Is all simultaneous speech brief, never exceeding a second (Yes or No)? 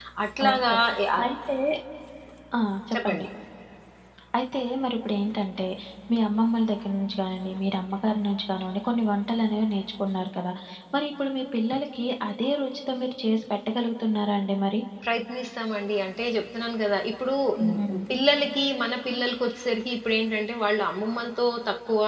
Yes